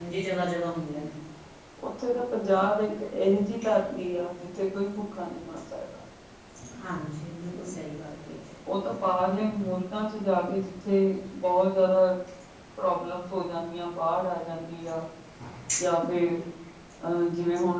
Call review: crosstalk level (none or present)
none